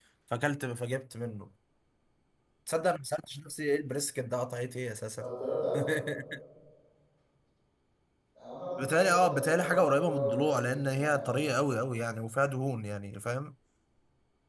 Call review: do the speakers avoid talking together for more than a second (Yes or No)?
No